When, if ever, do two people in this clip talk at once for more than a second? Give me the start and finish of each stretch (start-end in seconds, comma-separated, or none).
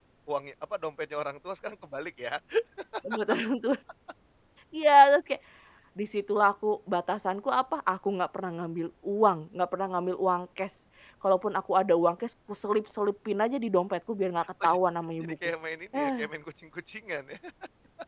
none